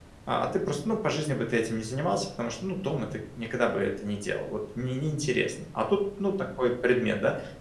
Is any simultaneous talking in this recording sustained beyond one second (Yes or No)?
No